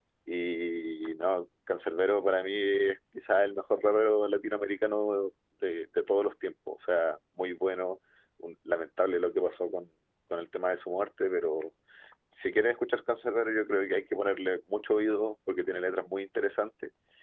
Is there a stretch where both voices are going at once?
No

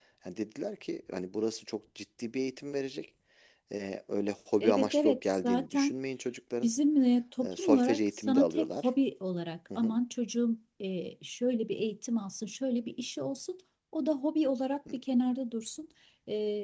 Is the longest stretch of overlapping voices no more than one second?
No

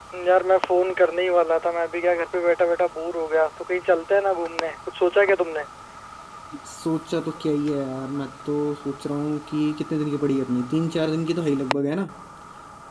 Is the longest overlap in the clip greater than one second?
No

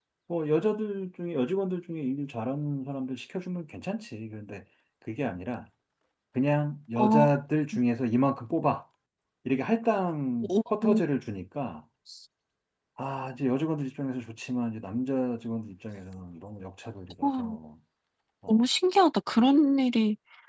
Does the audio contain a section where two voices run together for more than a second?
No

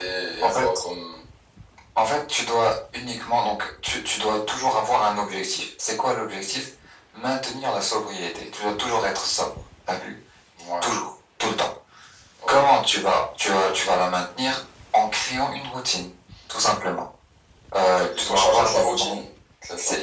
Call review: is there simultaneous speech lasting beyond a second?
Yes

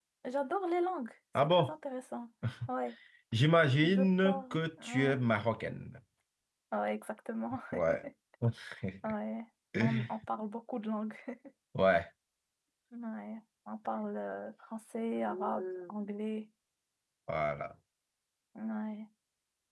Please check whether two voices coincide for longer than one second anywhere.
Yes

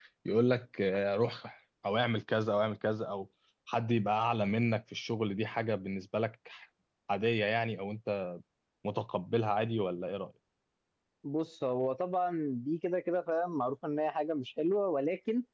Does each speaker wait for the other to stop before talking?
Yes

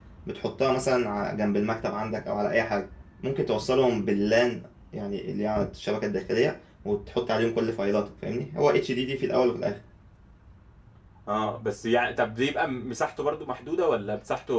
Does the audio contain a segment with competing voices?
No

